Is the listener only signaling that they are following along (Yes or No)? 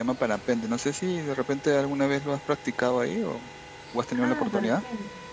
No